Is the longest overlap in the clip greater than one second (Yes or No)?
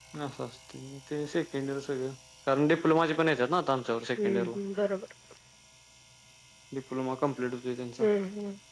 No